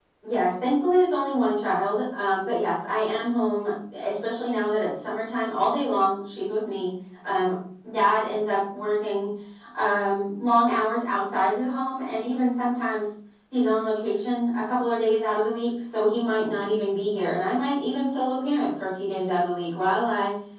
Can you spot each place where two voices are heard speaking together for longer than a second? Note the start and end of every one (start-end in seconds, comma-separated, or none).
none